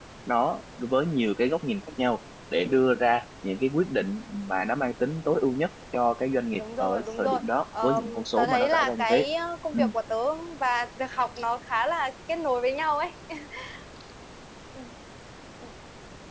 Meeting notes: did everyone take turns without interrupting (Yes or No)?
No